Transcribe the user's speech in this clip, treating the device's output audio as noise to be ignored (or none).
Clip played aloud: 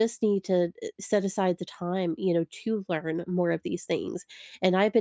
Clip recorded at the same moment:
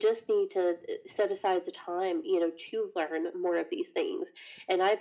none